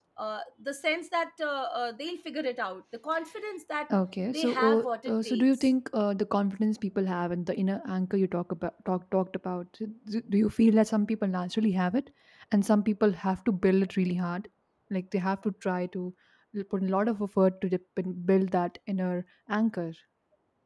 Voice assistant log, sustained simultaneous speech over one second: present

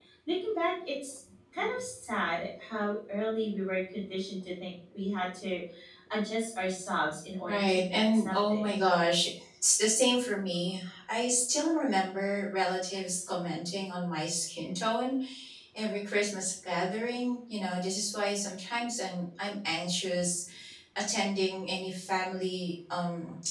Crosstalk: present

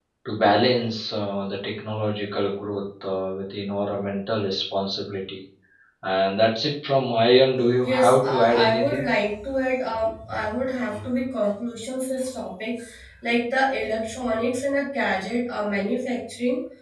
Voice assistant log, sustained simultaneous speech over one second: present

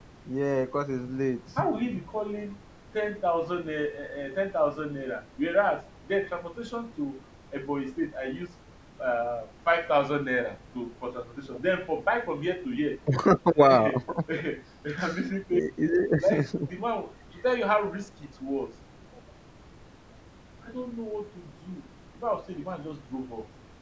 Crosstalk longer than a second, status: none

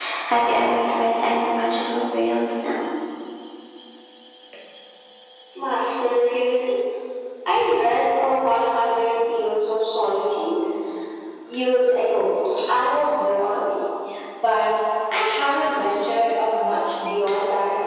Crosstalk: none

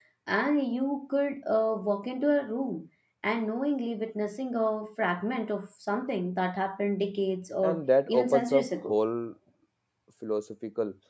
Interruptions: present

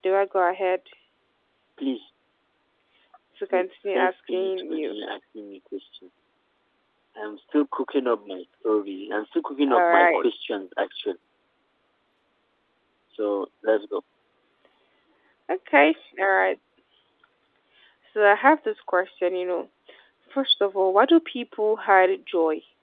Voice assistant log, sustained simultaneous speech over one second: present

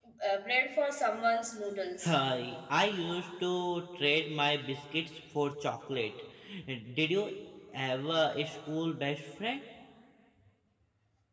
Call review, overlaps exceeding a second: none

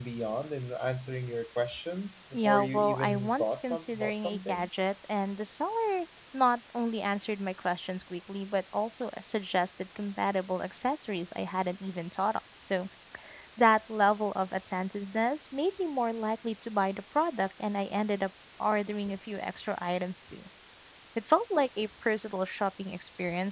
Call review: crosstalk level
present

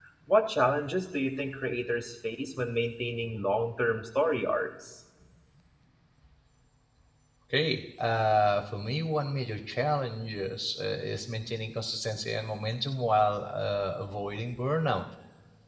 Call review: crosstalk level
none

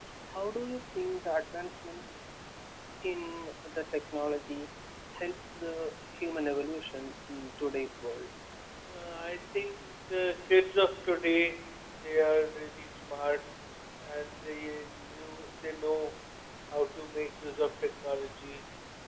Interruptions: none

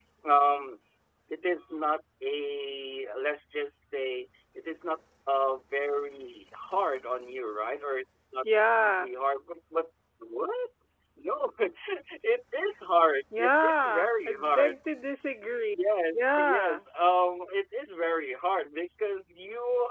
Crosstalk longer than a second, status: present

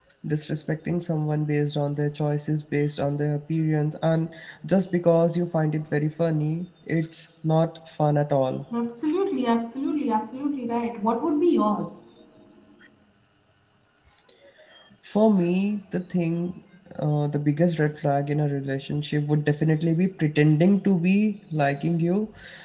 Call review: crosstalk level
none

